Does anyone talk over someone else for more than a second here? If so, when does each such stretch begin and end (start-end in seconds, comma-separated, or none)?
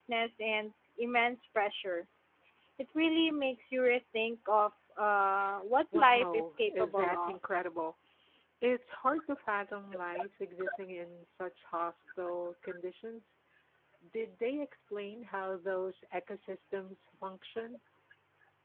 5.9-7.4